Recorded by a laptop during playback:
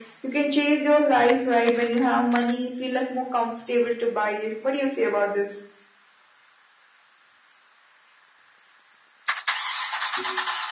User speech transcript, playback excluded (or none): none